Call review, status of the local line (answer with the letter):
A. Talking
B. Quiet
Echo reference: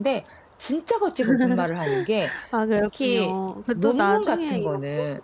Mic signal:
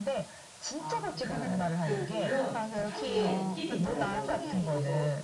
A